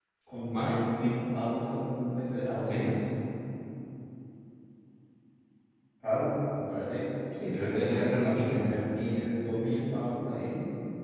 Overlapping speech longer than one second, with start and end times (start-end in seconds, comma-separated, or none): 7.6-8.9